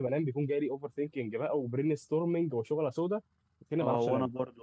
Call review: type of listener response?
taking over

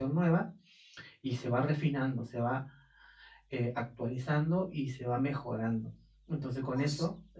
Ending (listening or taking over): listening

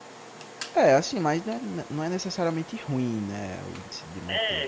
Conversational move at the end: taking over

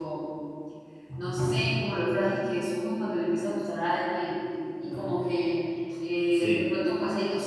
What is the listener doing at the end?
listening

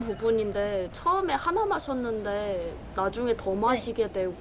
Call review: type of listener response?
listening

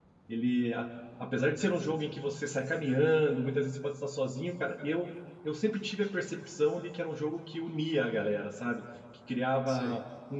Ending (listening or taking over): listening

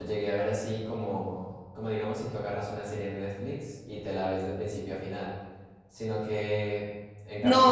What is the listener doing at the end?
taking over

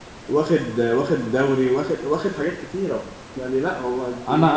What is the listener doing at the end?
taking over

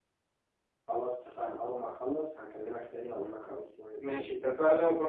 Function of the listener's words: taking over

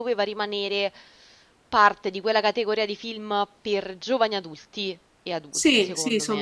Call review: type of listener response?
taking over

